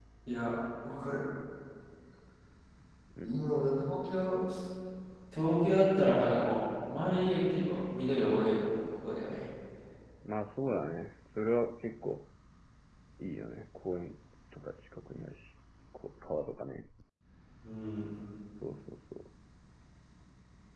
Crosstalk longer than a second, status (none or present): none